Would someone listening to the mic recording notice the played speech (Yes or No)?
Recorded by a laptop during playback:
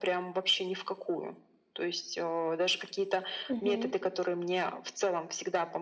Yes